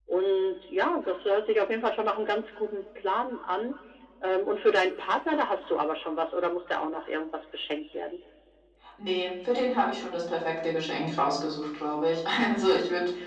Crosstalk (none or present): none